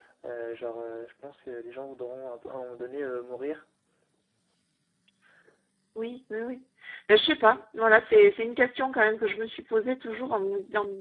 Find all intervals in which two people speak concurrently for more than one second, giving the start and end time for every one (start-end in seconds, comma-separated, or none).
none